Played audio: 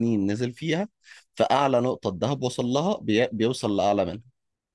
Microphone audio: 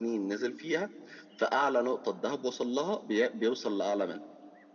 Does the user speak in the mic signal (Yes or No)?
No